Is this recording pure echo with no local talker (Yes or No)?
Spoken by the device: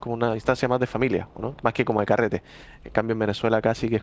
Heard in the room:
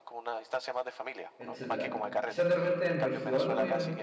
No